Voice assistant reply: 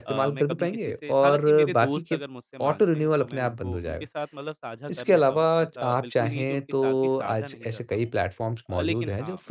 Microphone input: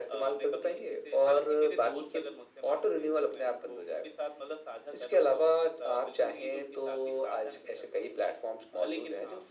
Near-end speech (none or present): none